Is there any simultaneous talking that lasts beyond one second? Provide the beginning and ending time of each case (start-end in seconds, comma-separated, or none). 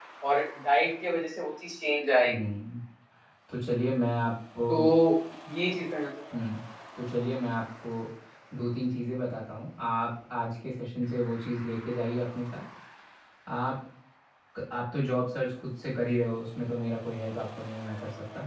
none